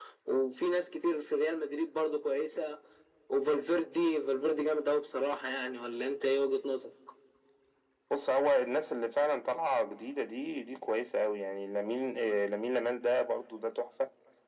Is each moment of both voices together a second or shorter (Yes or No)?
Yes